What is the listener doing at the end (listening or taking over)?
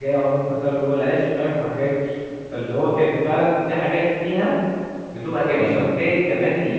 listening